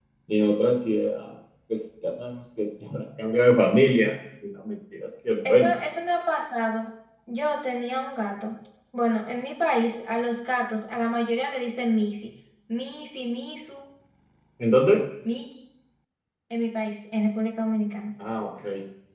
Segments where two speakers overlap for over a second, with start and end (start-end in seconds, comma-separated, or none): none